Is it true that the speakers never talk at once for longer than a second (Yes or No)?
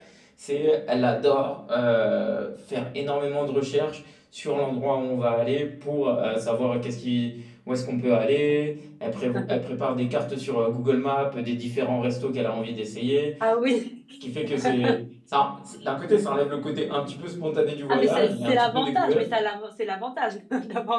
No